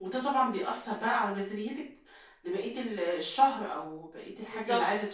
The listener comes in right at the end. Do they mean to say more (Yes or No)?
No